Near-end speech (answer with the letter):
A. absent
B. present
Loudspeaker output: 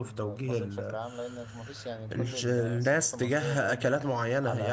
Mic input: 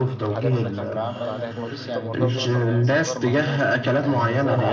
B